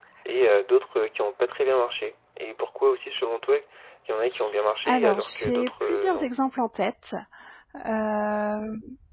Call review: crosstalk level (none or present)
present